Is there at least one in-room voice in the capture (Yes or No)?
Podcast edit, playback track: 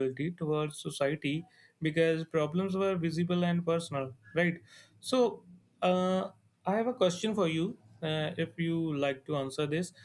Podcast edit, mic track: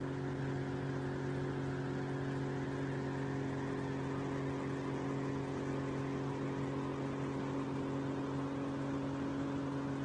No